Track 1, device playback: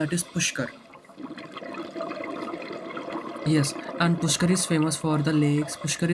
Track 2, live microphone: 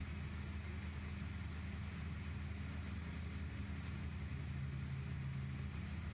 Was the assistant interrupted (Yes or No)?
No